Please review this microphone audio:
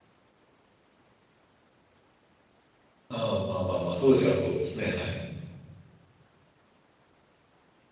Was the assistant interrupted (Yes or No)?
Yes